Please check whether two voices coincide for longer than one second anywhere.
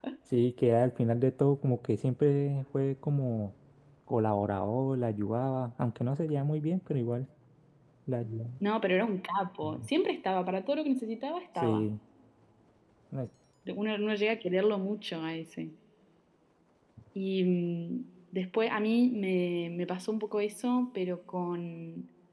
No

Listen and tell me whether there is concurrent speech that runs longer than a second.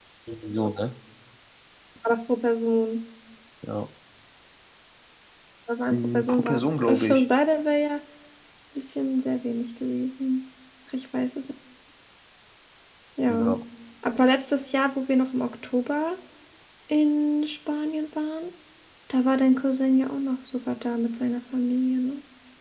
Yes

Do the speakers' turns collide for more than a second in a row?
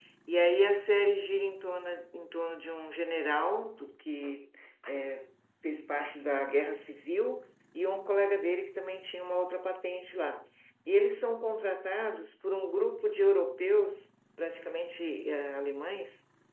No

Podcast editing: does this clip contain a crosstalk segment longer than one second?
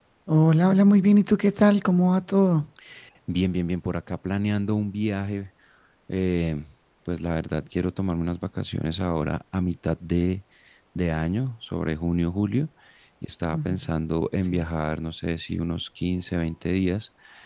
No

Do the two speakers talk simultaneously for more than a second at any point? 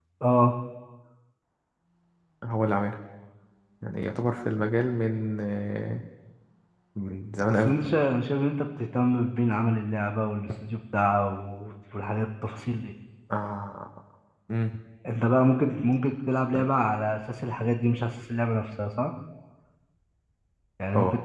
No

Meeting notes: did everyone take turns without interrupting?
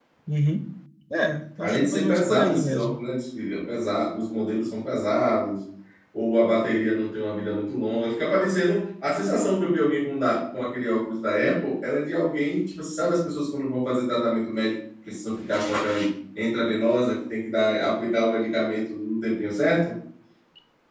No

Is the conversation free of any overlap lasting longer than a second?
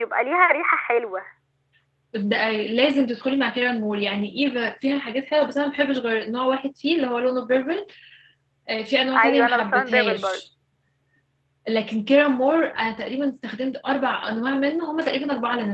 No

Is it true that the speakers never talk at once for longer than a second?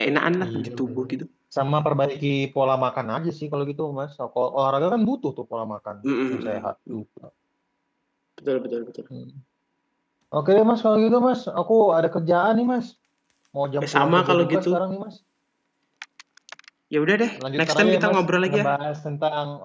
No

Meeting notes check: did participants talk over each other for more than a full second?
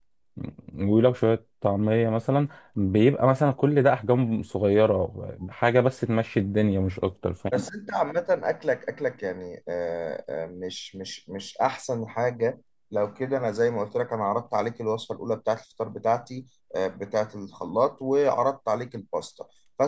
No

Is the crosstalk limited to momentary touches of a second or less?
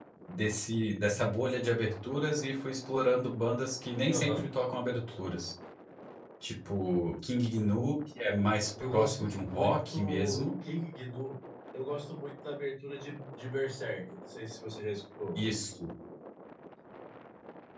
No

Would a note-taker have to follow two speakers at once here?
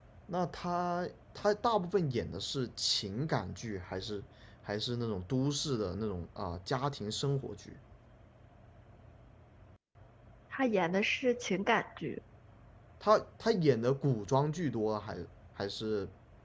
No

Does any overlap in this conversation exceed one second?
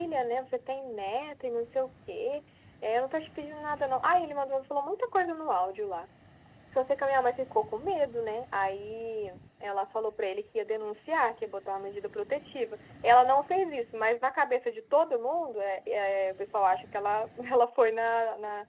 No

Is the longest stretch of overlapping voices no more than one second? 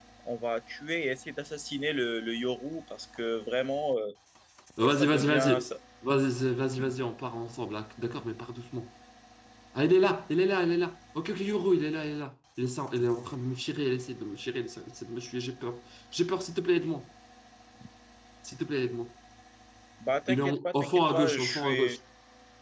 No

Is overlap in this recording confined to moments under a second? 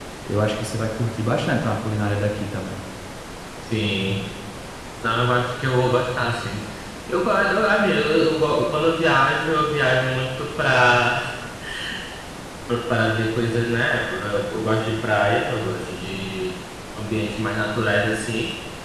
Yes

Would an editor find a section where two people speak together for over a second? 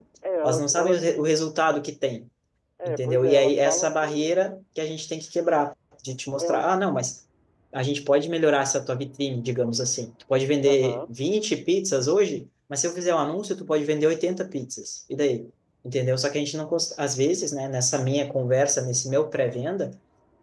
Yes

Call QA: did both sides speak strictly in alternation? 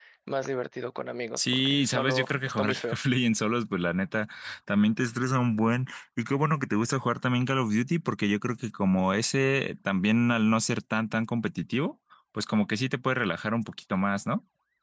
No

